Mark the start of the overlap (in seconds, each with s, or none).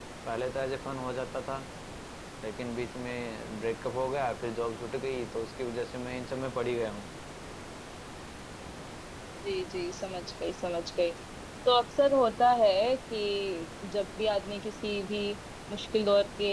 none